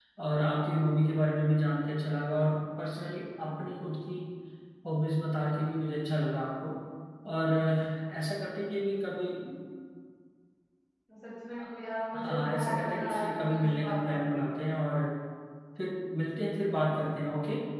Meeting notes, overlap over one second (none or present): present